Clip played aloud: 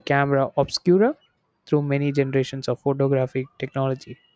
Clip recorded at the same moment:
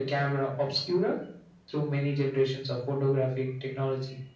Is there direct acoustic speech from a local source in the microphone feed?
No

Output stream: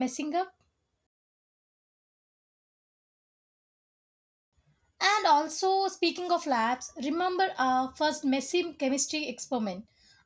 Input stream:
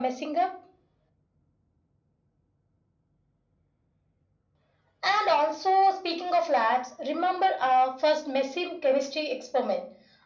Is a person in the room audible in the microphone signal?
No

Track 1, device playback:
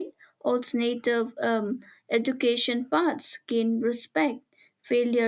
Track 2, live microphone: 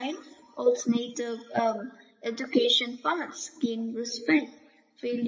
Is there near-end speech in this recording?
No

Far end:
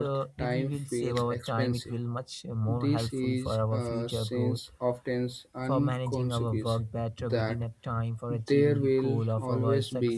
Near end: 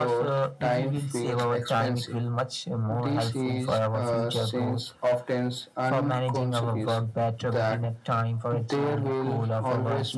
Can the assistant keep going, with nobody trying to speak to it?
Yes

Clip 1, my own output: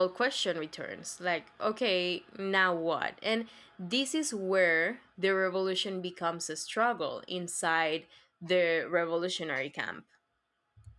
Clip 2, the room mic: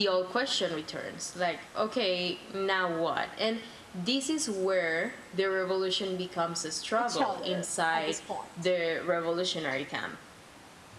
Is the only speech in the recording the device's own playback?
No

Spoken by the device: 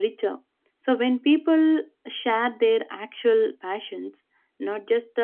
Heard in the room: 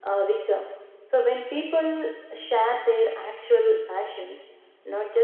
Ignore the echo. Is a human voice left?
No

